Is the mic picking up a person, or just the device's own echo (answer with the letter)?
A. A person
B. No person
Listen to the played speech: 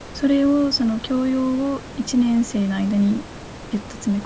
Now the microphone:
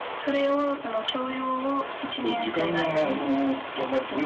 A